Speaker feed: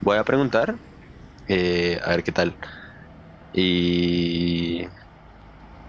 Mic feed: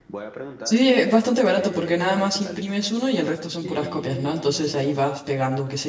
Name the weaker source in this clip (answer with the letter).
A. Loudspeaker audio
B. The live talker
A